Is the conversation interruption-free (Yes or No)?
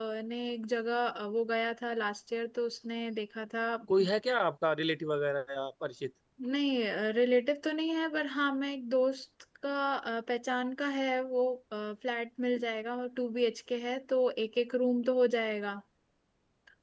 Yes